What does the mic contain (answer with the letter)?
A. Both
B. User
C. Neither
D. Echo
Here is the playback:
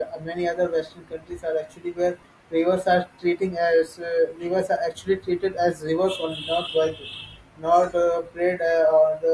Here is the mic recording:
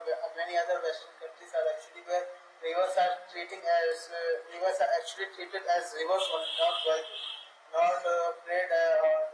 D